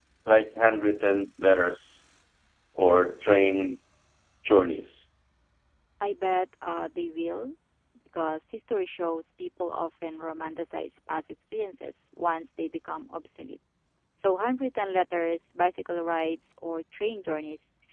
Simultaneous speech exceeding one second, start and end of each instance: none

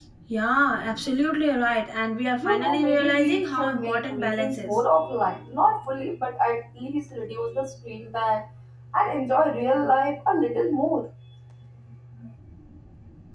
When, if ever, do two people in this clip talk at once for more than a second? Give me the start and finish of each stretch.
2.4-4.7

